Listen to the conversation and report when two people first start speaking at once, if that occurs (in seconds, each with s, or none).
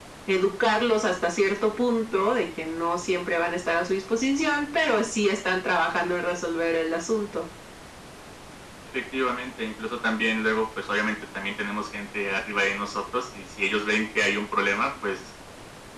none